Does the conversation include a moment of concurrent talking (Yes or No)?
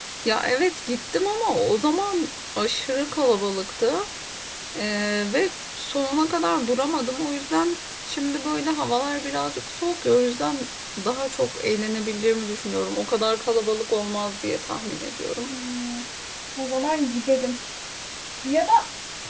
No